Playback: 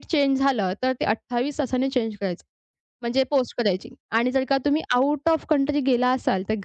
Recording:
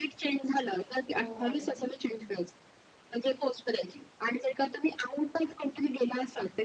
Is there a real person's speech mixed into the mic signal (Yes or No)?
Yes